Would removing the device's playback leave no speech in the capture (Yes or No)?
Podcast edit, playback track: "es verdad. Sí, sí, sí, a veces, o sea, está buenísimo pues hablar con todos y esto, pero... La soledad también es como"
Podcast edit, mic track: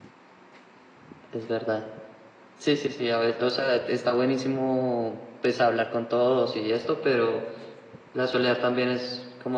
Yes